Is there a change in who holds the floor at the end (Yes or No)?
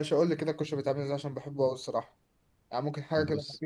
No